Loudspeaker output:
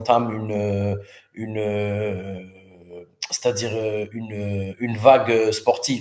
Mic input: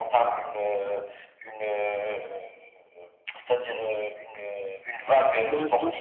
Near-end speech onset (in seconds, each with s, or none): 5.0 s